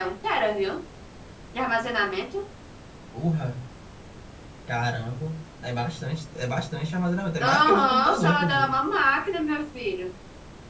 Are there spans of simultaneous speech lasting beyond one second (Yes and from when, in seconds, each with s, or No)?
Yes, from 7.4 s